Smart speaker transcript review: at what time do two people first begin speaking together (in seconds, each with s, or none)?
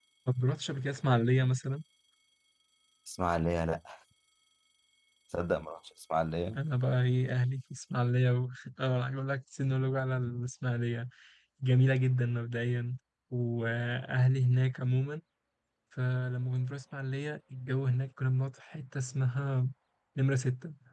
none